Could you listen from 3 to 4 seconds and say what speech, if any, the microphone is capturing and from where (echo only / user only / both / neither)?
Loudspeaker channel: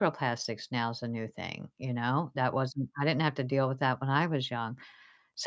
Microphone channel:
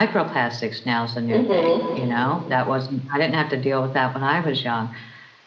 echo only